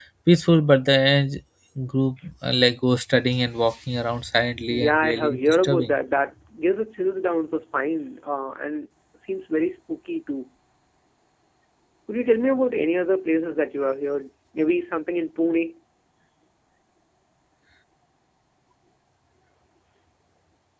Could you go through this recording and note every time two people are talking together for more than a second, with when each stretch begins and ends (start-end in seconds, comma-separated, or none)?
4.7-5.9